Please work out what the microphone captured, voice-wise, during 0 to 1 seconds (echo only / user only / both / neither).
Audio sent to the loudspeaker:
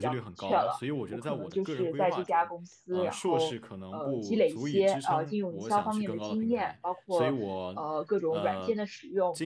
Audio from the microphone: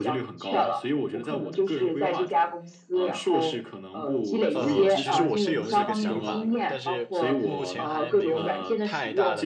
echo only